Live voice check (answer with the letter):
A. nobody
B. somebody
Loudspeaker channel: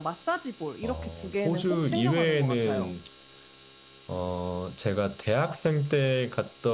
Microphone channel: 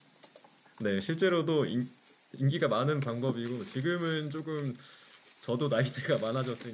B